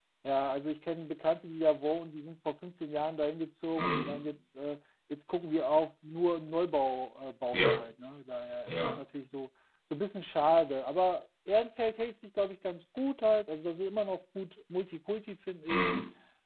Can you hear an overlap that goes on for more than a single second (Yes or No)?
No